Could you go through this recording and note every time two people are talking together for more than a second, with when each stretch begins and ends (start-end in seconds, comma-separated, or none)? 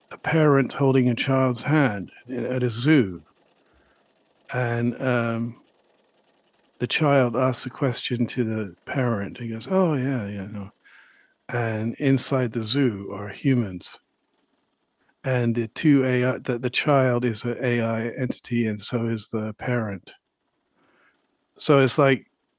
none